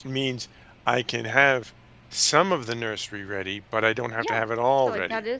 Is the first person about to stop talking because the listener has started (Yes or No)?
Yes